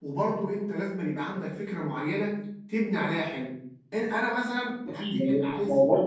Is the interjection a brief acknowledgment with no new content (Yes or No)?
No